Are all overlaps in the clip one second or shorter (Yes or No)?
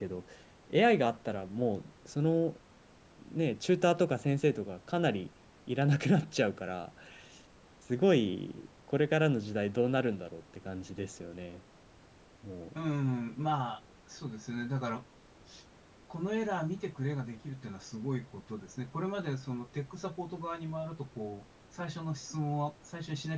Yes